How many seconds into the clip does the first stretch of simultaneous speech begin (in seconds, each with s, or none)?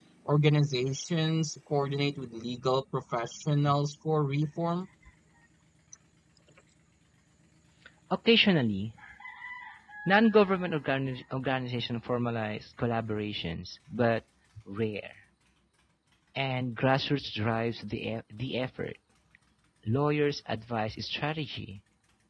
none